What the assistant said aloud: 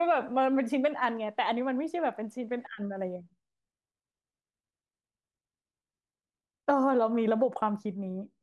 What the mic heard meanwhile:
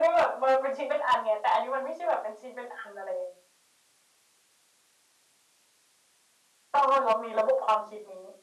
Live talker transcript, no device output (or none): none